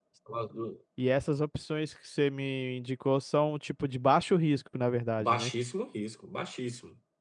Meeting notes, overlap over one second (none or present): none